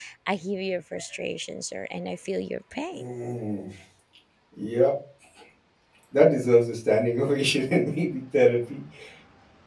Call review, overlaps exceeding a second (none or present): none